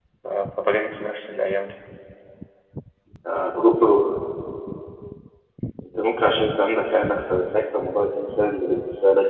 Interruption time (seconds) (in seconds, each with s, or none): none